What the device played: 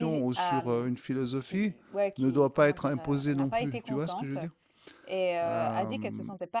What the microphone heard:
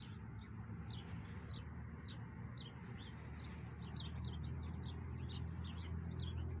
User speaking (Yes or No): No